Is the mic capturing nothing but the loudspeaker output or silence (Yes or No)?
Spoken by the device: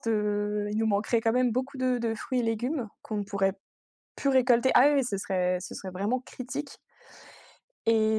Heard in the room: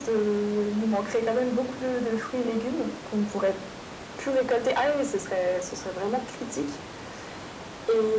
Yes